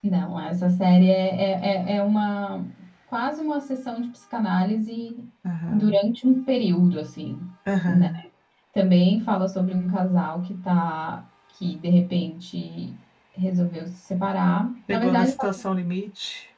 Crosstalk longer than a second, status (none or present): none